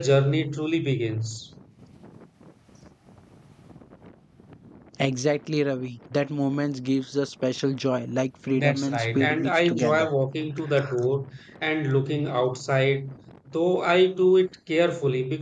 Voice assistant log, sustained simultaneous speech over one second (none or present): present